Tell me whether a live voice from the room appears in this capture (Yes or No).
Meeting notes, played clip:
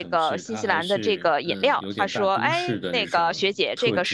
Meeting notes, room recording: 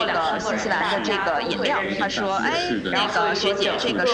Yes